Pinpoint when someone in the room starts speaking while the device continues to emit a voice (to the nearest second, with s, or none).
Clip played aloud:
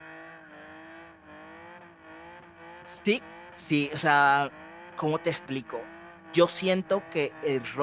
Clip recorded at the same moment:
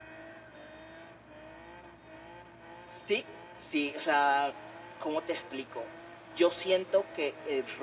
none